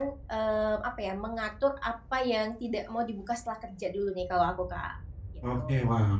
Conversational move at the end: taking over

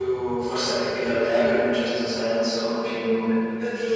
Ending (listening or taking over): taking over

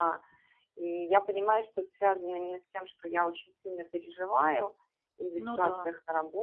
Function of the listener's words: listening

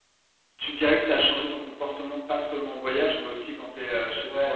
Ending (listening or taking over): taking over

